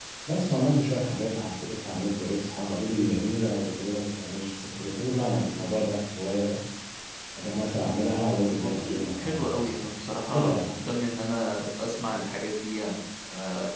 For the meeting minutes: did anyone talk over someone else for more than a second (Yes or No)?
Yes